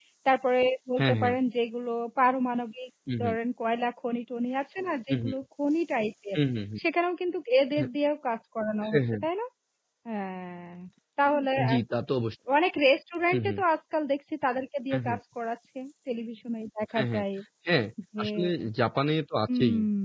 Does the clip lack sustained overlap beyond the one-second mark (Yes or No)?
Yes